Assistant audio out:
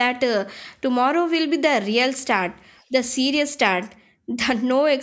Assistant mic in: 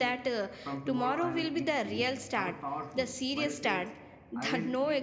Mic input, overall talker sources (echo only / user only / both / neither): both